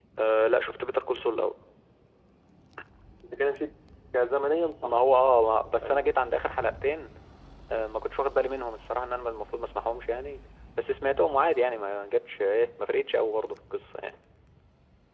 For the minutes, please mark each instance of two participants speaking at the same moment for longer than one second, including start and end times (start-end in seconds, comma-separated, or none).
none